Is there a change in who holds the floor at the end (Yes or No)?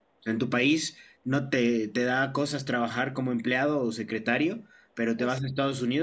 No